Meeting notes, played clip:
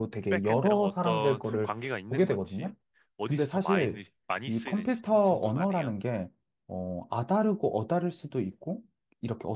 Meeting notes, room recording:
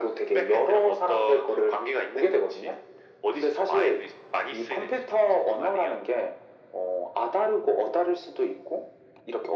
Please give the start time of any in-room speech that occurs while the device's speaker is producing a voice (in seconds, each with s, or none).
none